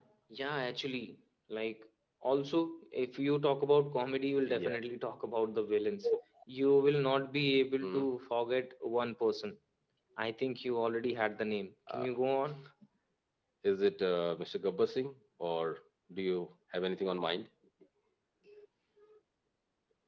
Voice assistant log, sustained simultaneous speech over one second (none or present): none